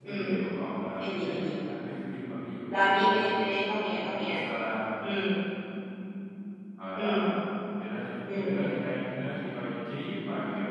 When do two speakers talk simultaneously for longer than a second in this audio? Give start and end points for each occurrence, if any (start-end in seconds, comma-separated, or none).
none